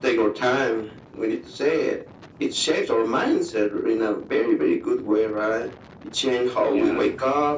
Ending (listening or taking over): listening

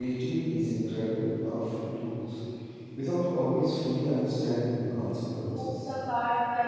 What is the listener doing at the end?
taking over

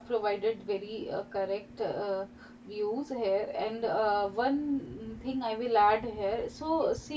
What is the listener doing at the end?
listening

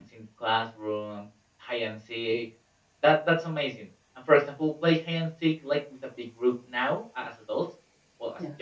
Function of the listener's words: listening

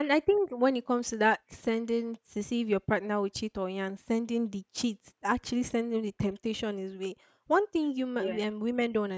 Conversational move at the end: listening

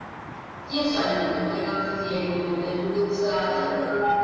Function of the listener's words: listening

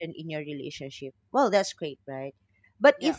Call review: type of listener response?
listening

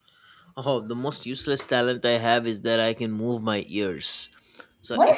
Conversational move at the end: listening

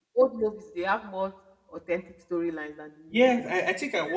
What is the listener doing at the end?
taking over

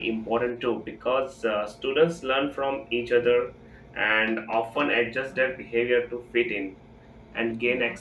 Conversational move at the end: listening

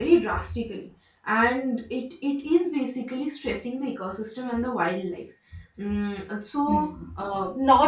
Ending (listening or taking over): taking over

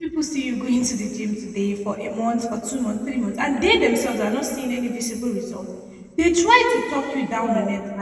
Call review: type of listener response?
listening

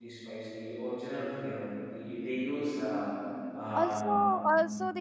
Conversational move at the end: taking over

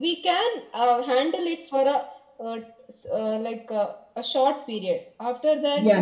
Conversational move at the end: taking over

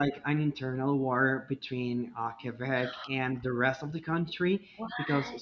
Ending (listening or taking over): listening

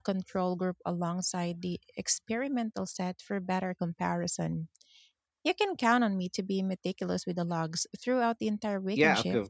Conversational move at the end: taking over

